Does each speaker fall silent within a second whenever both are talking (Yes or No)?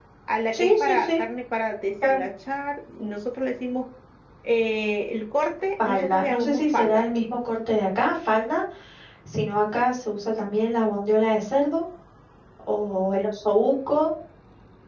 No